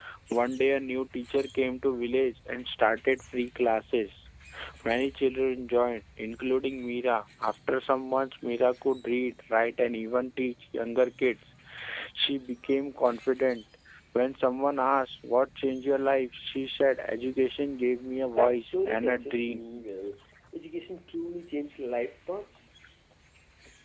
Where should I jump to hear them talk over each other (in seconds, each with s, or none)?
18.2 s